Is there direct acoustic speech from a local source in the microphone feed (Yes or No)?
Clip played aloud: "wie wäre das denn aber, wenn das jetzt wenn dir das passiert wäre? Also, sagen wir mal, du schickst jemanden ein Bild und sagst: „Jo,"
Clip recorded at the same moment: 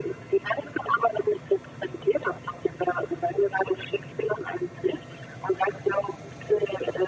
No